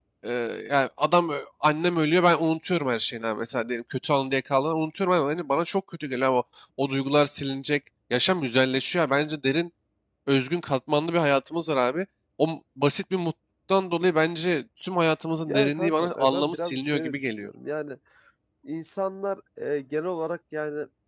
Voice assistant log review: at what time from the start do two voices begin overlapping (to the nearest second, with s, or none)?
15 s